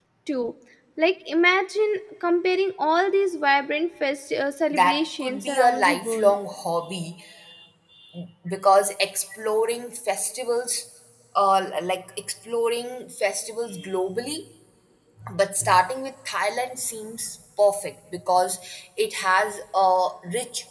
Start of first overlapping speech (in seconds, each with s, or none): 4.7 s